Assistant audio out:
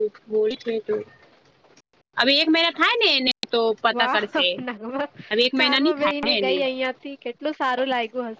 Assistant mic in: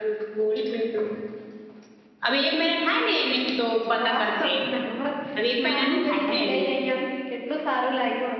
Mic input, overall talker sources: echo only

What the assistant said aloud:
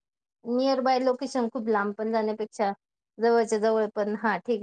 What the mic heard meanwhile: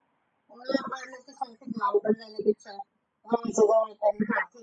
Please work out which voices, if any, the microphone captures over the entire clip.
echo only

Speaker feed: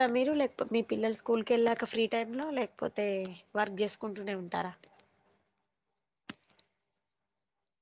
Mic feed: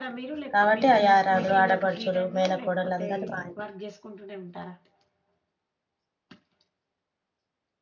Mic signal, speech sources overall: both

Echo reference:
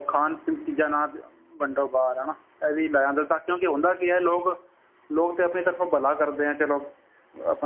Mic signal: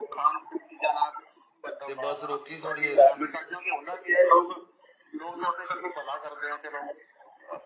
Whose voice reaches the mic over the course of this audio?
both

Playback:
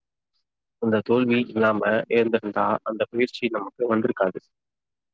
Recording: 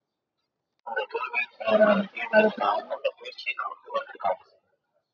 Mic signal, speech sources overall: both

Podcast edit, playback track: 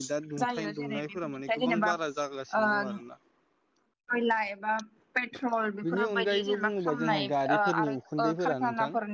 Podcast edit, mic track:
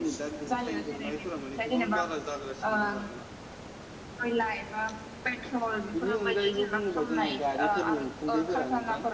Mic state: echo only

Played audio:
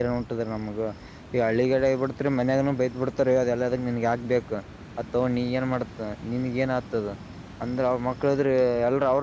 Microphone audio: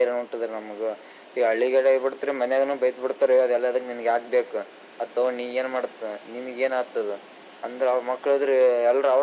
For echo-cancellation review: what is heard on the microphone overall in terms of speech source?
echo only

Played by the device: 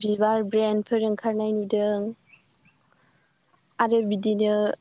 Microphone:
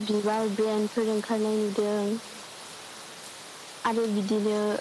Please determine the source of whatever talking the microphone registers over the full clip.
echo only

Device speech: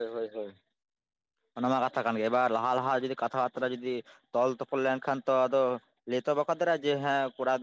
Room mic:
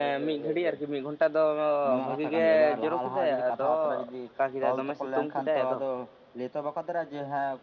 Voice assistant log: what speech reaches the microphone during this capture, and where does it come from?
both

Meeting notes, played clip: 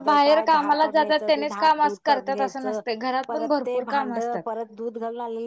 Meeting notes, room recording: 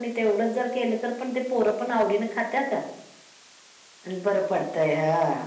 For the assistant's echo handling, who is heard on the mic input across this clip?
user only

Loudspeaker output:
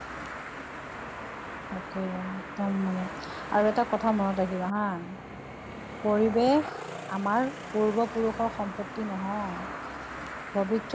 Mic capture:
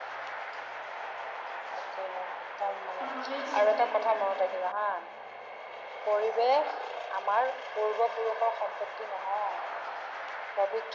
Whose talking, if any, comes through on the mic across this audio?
both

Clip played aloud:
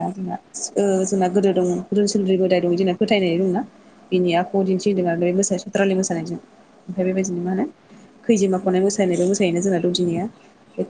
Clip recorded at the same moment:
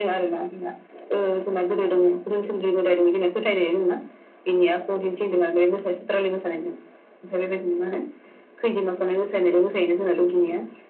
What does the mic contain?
echo only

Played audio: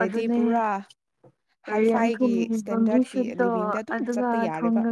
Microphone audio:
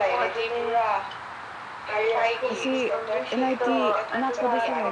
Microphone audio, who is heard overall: both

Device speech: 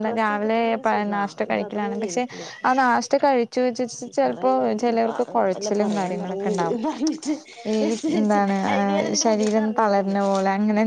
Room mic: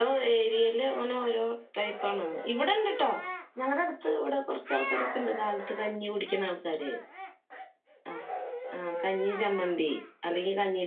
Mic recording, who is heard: user only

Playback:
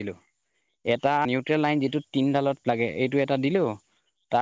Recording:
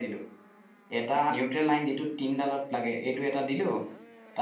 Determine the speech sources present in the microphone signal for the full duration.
echo only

